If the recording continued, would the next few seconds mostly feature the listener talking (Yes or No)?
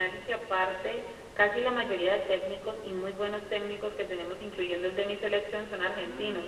Yes